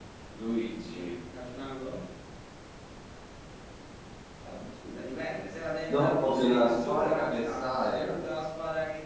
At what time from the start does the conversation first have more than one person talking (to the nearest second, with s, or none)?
6 s